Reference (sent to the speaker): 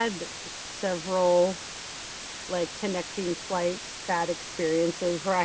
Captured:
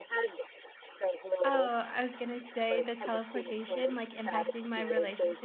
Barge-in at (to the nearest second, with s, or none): 1 s